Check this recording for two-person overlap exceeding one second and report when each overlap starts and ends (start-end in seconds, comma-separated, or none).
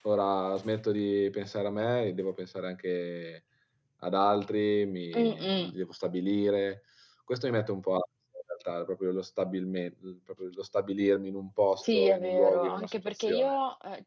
11.8-13.6